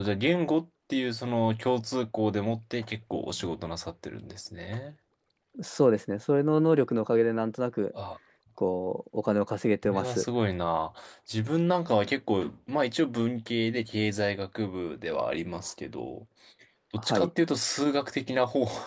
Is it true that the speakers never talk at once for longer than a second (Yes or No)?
Yes